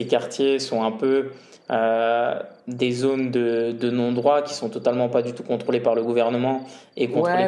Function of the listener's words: taking over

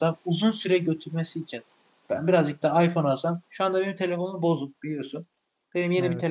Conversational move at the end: listening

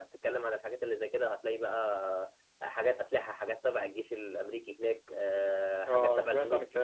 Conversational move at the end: taking over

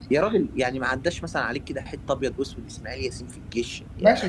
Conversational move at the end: taking over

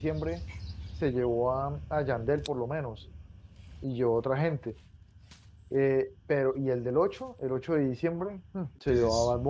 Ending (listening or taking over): listening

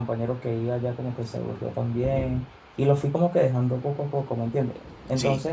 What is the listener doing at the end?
listening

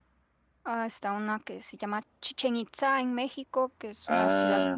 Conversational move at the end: taking over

